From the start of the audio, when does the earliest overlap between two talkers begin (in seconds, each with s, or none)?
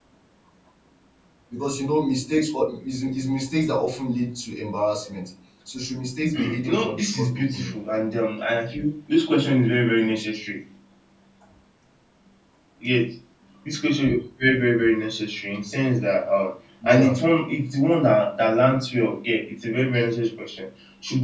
6.4 s